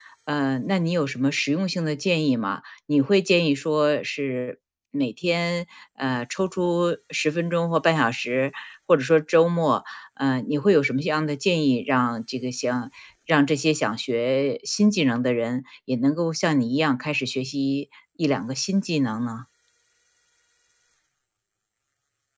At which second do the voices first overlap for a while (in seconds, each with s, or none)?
none